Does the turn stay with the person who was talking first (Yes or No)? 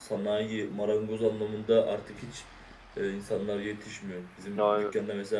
Yes